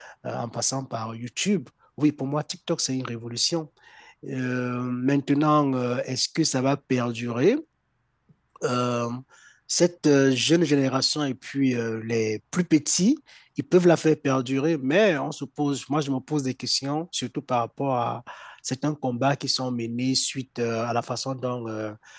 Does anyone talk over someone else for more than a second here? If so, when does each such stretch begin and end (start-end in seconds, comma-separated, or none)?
none